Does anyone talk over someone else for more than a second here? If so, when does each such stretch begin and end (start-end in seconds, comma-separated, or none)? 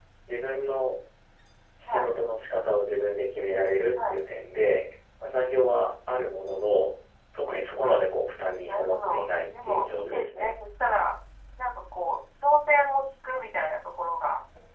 8.7-10.5